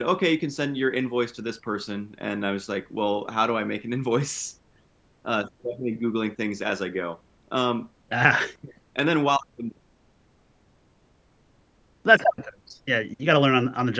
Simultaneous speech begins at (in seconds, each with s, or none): none